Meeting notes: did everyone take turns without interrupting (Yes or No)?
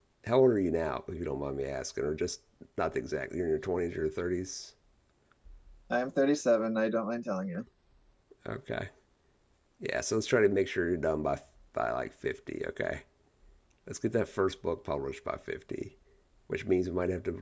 Yes